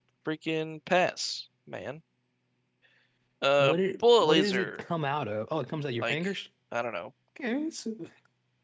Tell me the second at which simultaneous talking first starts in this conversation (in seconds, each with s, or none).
3.6 s